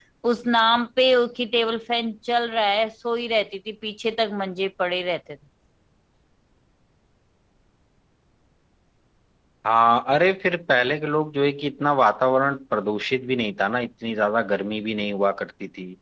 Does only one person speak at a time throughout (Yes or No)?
Yes